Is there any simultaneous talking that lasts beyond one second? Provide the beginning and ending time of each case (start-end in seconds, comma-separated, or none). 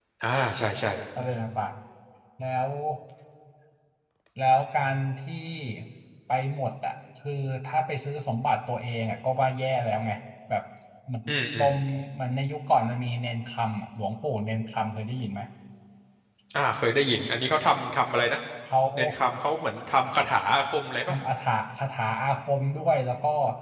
none